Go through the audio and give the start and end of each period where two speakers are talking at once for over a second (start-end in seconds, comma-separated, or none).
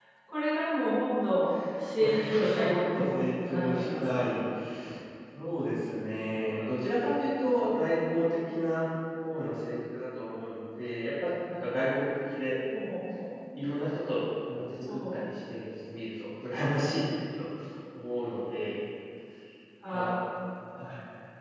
2.0-4.3